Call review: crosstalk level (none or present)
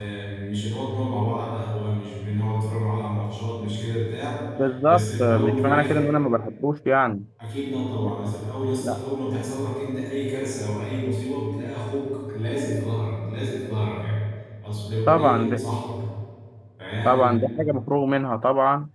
present